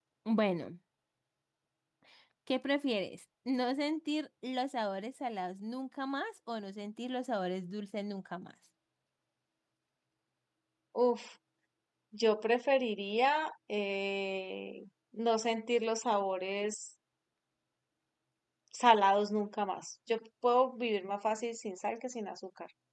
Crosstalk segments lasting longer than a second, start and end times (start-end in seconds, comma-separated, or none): none